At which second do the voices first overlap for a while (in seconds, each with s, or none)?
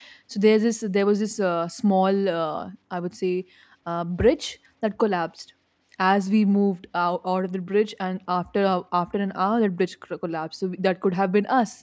none